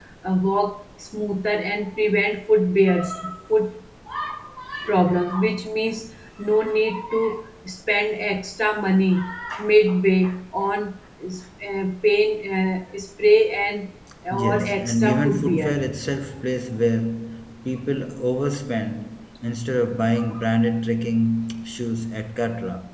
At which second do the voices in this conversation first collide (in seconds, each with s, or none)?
14.3 s